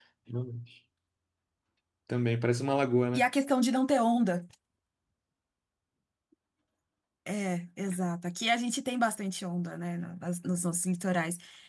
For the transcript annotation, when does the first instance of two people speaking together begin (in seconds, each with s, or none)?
none